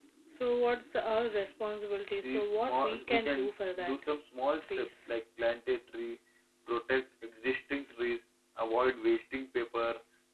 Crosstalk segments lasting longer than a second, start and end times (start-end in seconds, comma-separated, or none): 2.2-3.5